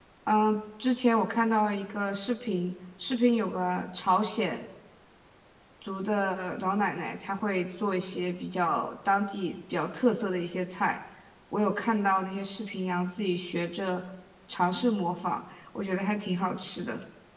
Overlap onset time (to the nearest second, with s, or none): none